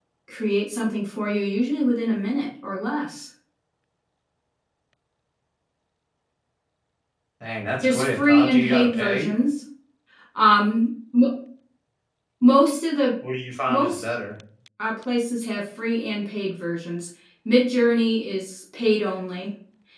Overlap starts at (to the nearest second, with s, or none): 8 s